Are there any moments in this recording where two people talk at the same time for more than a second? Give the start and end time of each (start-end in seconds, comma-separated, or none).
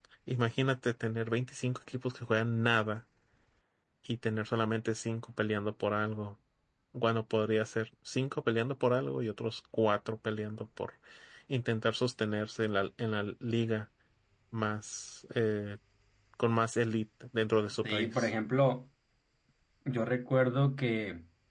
none